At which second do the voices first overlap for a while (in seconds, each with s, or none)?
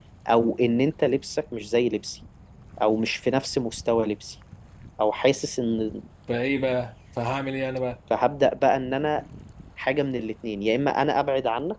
none